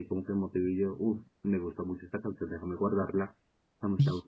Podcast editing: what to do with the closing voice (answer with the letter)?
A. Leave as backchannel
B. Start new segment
B